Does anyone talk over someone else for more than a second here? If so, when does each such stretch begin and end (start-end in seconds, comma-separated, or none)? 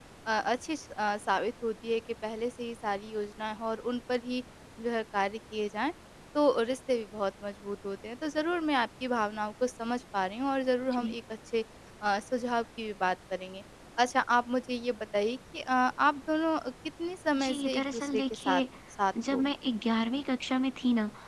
17.4-18.6